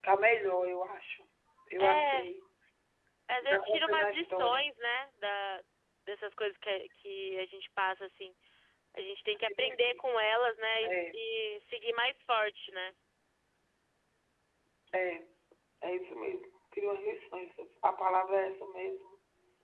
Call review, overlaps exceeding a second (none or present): present